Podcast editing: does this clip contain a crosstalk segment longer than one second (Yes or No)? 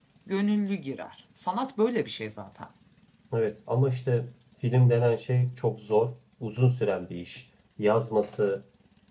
No